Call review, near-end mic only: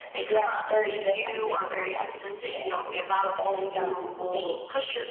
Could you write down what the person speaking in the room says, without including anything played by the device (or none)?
none